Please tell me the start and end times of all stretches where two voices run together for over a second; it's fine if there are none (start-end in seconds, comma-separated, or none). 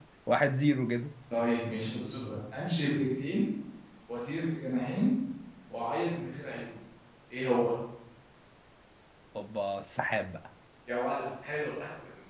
none